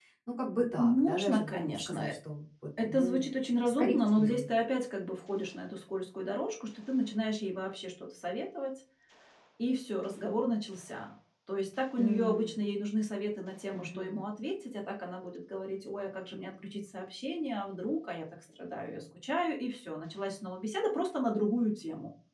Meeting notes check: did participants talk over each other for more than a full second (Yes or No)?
Yes